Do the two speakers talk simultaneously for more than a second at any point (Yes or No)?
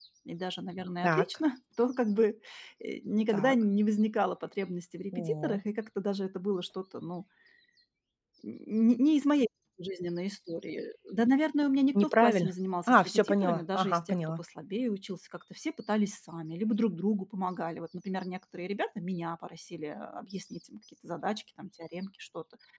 Yes